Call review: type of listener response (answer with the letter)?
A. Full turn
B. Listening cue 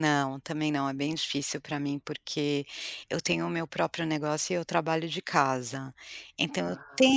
B